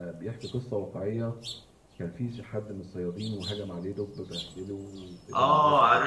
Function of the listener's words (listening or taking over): taking over